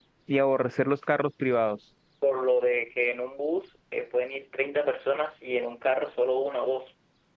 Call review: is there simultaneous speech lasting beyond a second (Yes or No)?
No